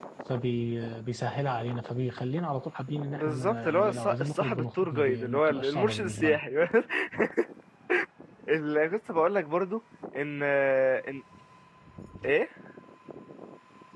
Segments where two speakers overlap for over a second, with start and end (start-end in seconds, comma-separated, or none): 3.1-6.4